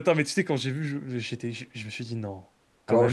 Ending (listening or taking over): taking over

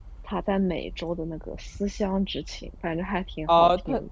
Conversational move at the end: taking over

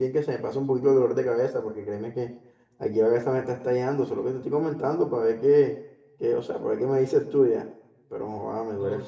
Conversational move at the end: taking over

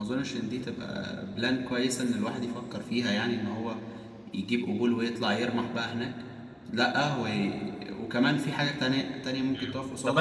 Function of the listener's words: taking over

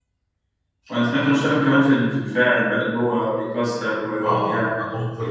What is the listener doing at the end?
taking over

